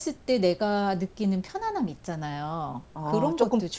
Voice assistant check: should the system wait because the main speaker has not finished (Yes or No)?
No